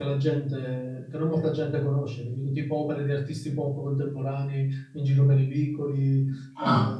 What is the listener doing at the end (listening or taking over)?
listening